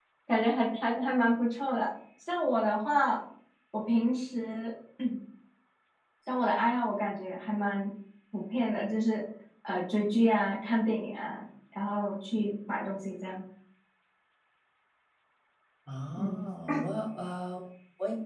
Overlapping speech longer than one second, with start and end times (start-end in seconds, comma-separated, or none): none